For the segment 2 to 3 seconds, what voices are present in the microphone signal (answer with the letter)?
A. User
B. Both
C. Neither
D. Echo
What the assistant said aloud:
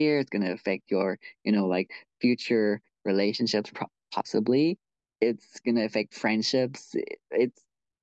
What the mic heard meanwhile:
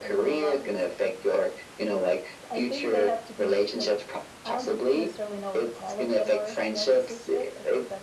B